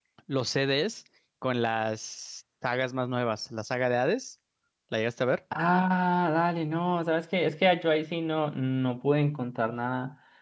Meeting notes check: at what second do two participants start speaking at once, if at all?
none

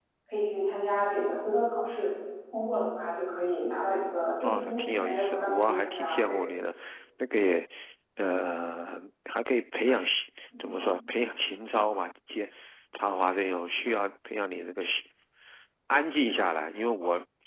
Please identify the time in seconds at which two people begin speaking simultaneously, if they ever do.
4 s

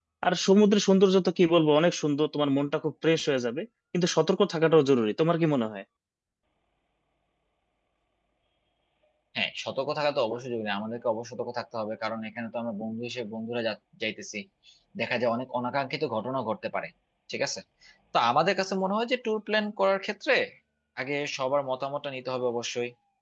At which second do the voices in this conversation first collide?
none

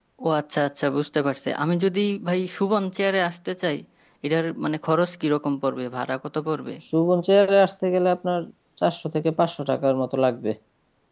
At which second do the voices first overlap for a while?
none

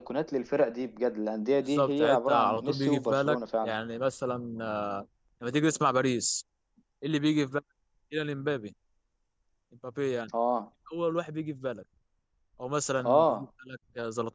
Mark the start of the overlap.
2 s

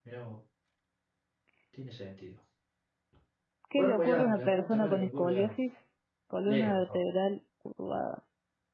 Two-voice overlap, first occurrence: 4 s

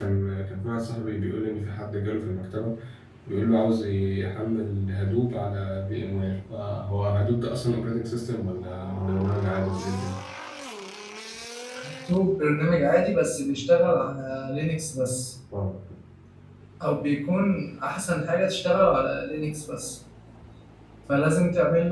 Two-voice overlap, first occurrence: none

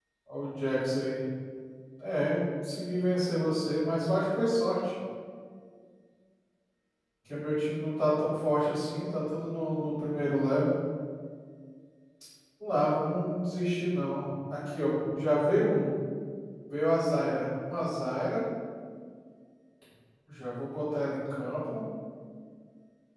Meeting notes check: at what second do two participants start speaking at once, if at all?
none

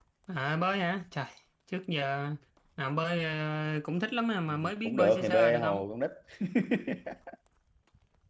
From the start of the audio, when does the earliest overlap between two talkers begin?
4 s

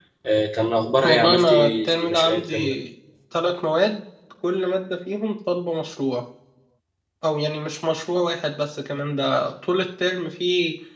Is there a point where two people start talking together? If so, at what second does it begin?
1 s

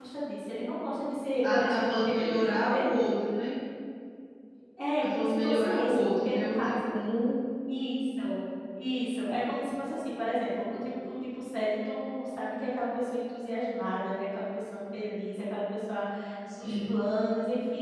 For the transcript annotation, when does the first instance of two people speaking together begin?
2 s

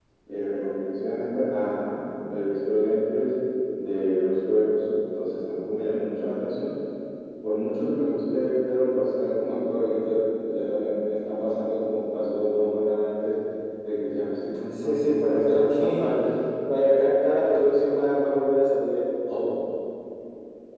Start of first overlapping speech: 15 s

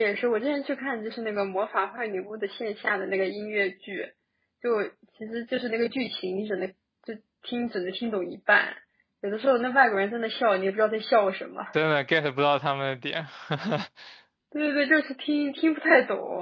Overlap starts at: none

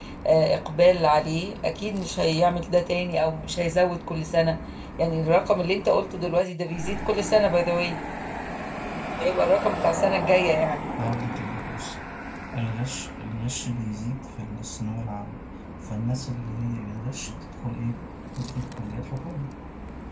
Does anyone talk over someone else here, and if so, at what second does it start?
none

